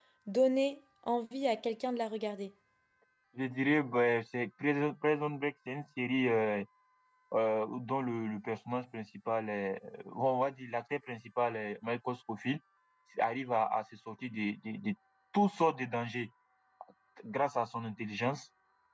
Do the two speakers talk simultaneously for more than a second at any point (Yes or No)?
No